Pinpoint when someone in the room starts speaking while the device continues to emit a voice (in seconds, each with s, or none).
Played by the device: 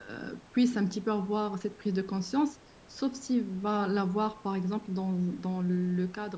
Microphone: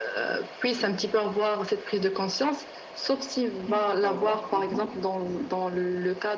3.7 s